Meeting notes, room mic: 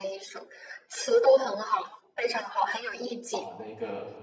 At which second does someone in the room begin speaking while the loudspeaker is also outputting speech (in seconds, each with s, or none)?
3.3 s